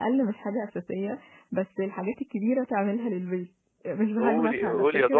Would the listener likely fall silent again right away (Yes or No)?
No